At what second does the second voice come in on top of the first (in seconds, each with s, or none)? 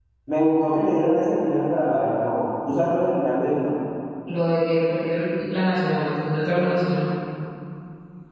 none